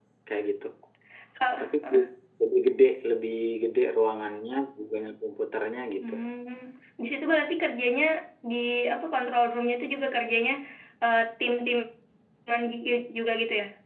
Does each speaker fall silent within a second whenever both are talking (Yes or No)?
Yes